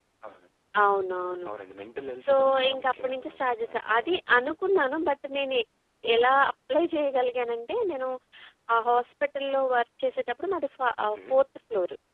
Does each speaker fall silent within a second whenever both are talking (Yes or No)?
No